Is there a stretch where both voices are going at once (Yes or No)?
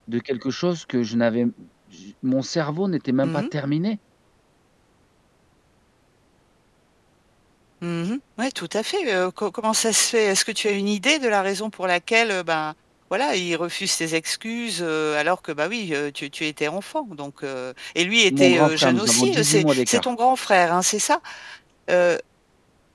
Yes